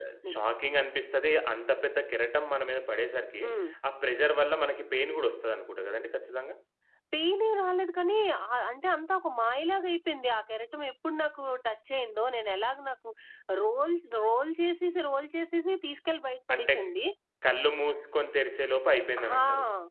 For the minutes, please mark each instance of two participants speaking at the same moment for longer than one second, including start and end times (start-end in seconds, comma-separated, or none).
none